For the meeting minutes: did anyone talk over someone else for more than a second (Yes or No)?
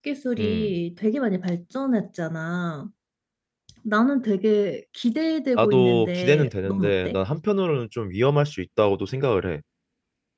Yes